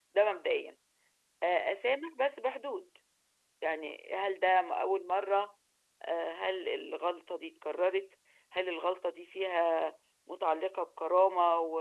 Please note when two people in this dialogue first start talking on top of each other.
none

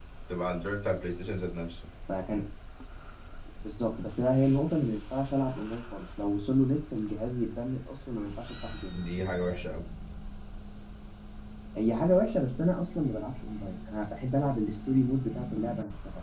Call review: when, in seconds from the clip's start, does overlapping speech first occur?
none

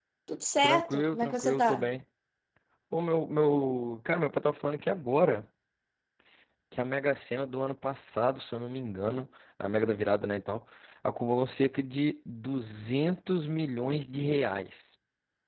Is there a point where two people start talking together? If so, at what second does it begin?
0.6 s

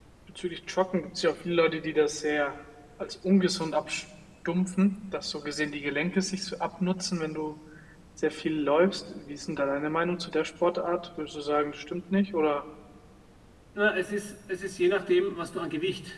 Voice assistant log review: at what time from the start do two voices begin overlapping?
none

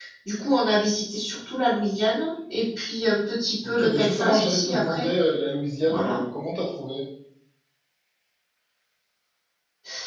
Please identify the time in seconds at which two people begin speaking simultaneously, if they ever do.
3.6 s

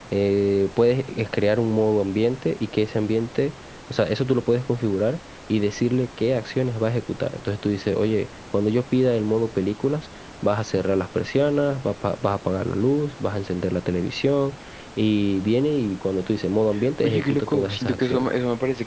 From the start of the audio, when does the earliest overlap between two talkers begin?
17.0 s

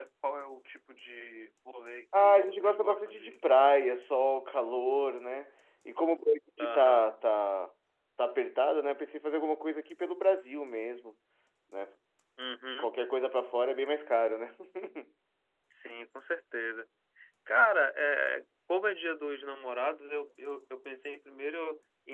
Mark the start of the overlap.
2.1 s

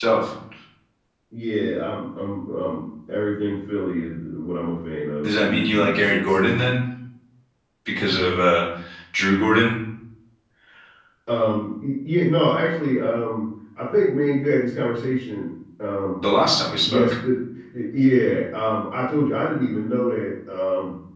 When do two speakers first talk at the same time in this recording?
5.2 s

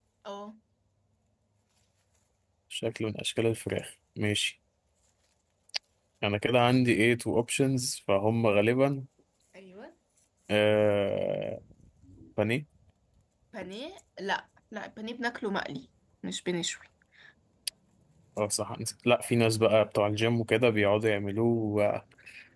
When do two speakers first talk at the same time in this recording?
none

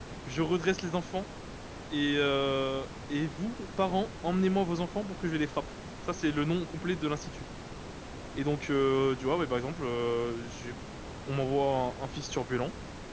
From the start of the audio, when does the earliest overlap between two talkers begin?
none

